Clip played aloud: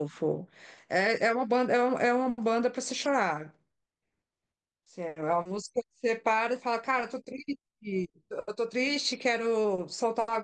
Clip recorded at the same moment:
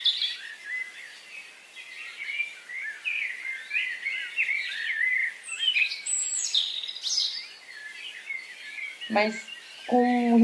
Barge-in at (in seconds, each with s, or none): 9.1 s